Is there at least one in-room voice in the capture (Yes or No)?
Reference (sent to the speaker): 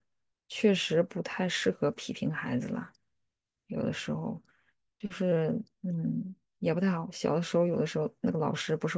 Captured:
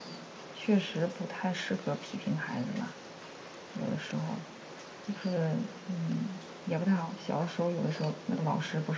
No